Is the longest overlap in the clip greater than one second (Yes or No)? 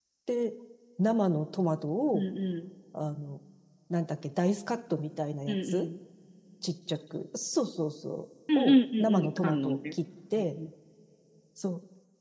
Yes